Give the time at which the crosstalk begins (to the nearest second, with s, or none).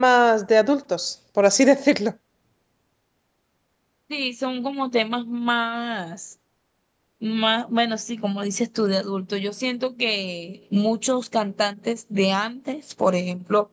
none